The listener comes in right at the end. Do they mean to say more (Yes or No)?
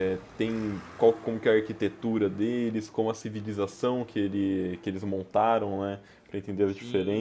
Yes